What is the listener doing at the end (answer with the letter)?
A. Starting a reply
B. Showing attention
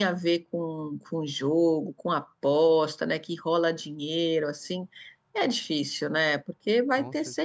B